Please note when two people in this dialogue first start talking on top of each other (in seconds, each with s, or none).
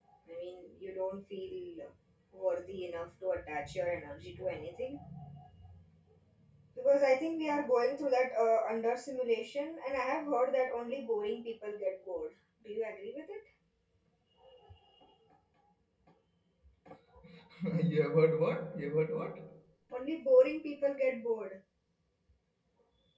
none